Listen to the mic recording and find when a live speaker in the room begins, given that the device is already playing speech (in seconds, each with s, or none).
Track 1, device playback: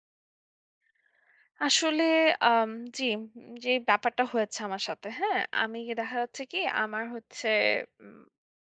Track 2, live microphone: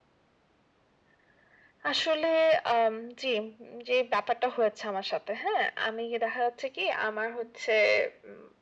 none